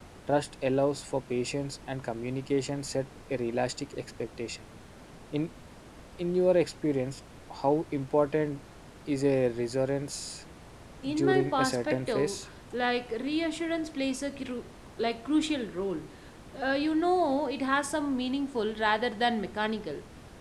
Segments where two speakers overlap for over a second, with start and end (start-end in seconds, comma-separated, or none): 11.1-12.4